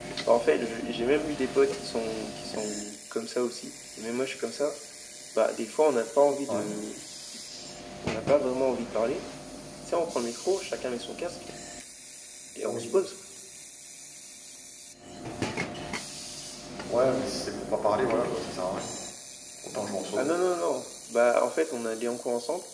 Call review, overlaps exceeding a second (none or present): none